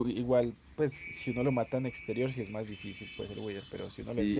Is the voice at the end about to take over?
Yes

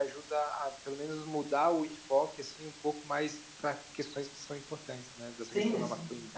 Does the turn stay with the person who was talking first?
No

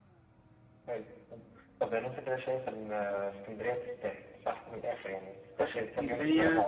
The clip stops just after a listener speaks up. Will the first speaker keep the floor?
No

